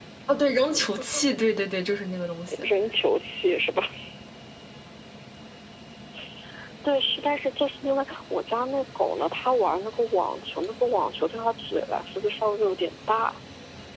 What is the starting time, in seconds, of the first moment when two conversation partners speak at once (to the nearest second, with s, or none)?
none